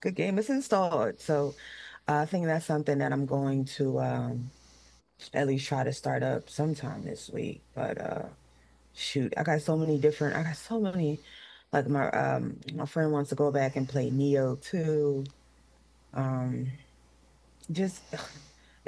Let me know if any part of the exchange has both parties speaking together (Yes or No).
No